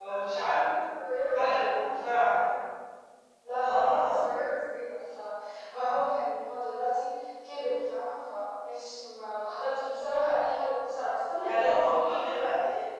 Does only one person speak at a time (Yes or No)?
No